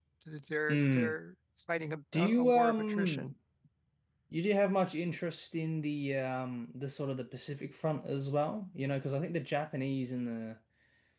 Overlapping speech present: Yes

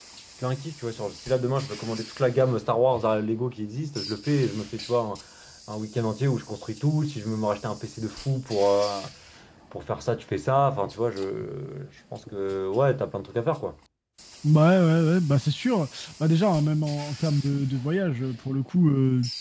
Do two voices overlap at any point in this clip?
No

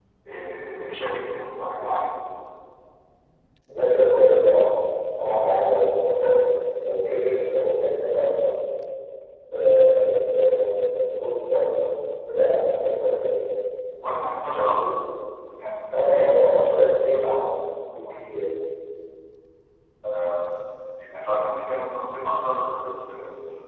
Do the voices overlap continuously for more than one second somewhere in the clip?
Yes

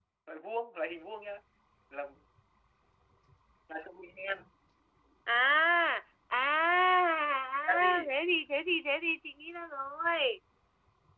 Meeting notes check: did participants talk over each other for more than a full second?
No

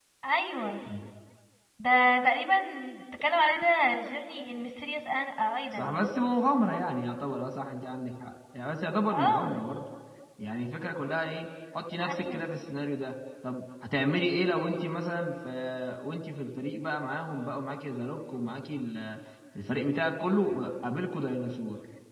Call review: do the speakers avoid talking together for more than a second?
Yes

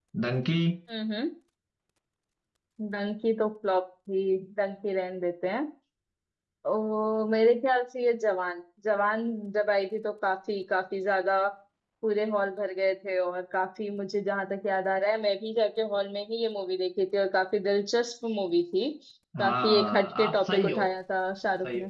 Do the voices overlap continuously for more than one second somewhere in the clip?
Yes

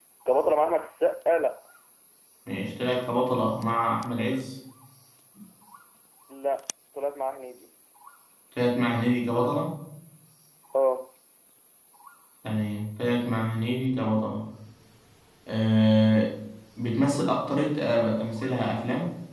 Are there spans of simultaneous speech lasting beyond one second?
No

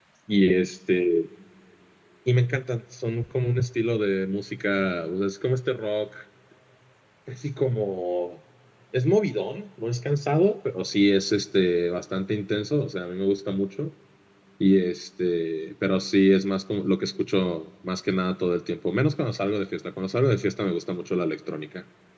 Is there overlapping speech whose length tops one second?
No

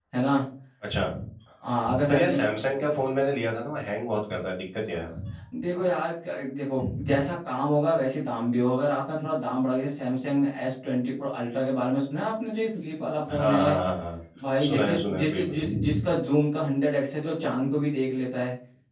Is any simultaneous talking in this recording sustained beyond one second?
Yes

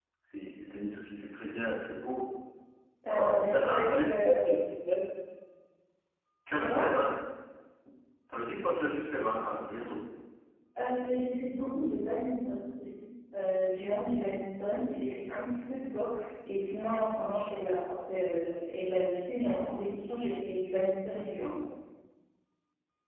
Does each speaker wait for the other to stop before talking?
No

